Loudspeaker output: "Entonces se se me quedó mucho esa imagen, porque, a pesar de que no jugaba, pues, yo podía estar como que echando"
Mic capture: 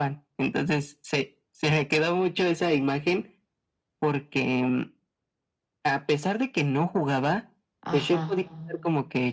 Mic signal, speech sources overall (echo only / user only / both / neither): both